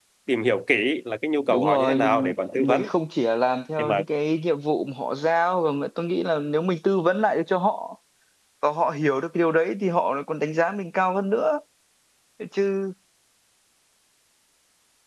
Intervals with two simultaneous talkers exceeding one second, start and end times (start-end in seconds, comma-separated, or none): 1.5-2.9